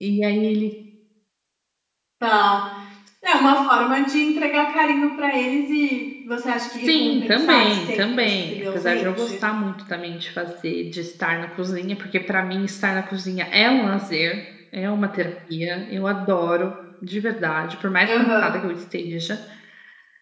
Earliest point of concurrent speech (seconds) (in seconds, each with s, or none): 6.8 s